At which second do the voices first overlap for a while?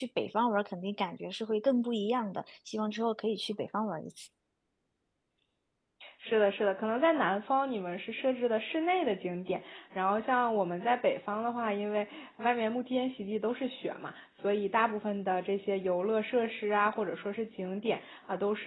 none

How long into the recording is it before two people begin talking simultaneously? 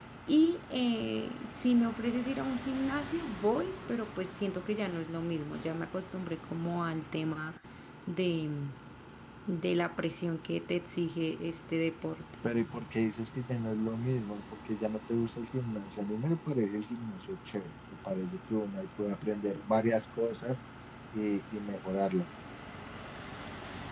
none

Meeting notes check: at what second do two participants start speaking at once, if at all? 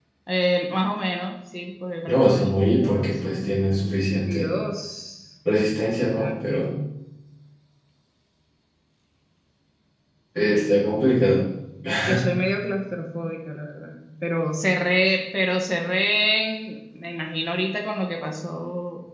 2.0 s

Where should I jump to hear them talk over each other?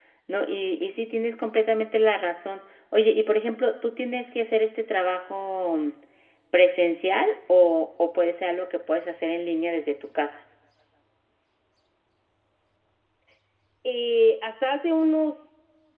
none

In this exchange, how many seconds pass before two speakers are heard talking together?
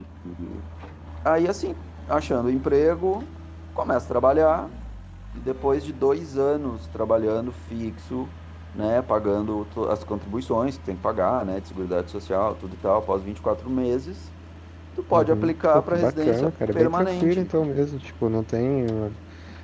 15.1 s

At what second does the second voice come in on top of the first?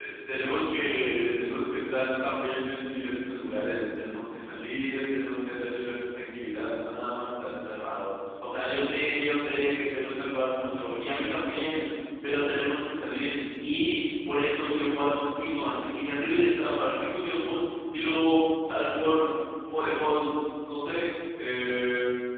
none

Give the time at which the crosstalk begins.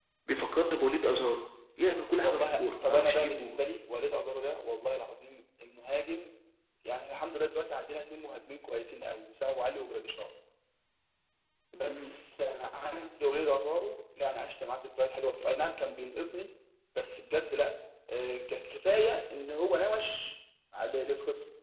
2.2 s

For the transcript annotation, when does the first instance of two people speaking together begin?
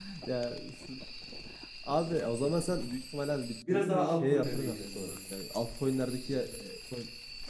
3.7 s

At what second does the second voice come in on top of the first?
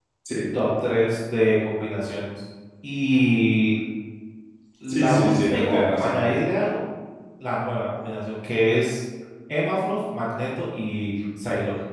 4.9 s

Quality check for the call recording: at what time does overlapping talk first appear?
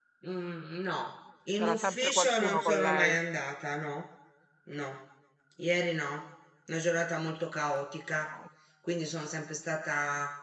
1.6 s

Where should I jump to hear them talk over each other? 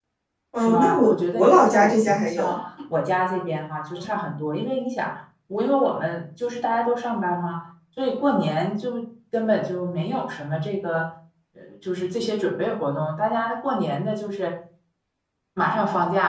0.6 s

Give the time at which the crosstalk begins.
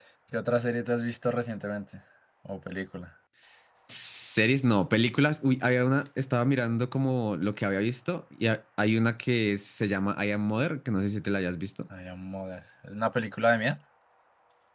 none

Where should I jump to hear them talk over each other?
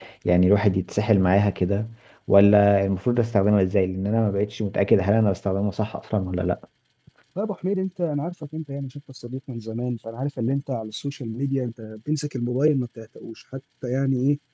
none

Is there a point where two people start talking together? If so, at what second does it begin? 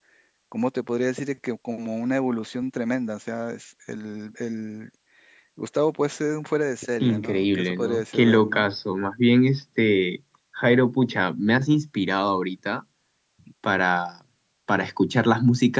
7.0 s

